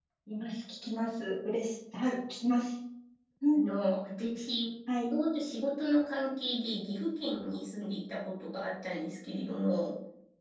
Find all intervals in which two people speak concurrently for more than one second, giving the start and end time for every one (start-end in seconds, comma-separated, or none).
none